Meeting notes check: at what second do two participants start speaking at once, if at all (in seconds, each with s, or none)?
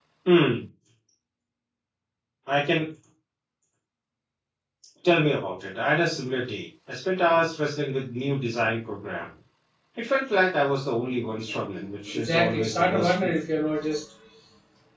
12.1 s